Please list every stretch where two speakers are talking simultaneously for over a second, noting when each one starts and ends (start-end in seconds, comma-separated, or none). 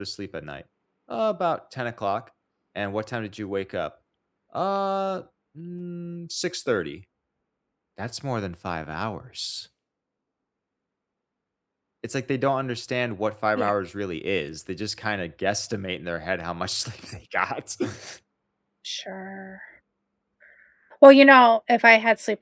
none